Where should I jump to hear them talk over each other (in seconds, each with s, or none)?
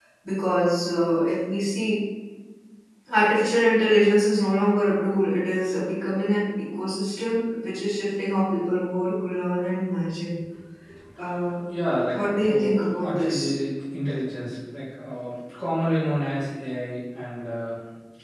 12.1 s